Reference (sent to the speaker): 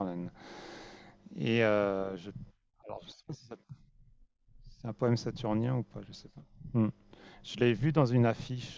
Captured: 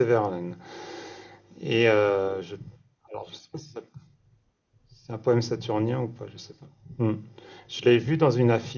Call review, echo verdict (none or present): present